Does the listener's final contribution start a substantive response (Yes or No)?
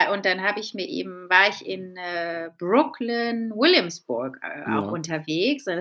No